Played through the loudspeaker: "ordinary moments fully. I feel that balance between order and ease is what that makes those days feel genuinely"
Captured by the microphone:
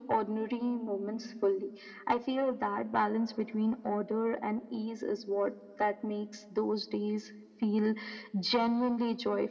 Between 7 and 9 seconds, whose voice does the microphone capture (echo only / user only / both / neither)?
echo only